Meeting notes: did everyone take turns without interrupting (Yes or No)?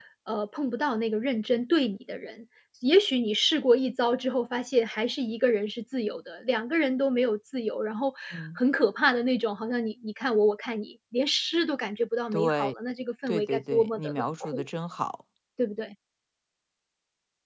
No